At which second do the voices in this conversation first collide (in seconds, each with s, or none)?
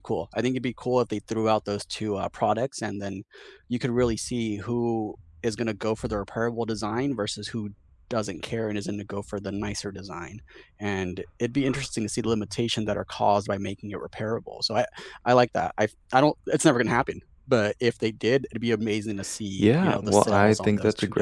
19.6 s